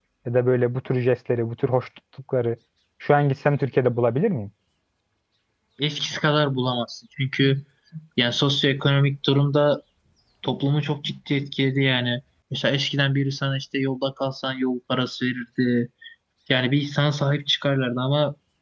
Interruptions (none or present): none